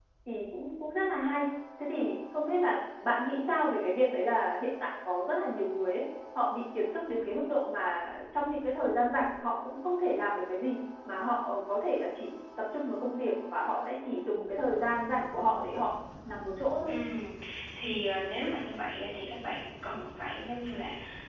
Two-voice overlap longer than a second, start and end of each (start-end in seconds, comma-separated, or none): none